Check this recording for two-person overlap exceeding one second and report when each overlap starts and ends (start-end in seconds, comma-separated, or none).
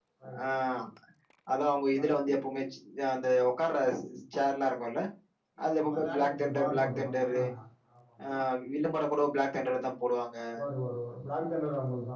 5.6-7.3